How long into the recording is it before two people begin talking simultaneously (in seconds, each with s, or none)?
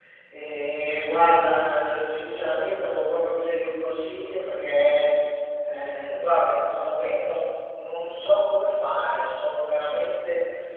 none